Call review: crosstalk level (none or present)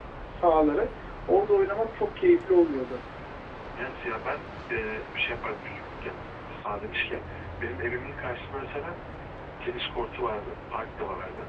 none